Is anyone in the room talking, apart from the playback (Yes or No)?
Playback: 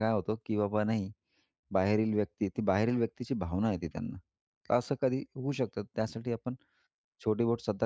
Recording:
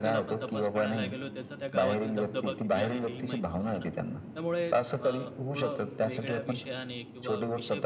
Yes